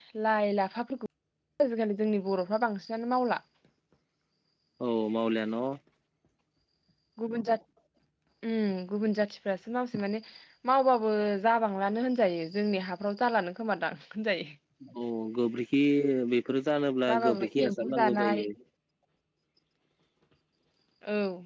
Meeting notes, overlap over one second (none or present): present